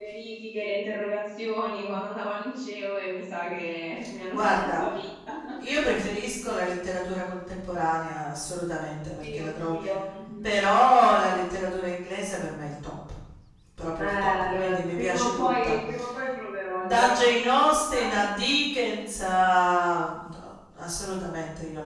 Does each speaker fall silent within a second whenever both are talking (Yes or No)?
No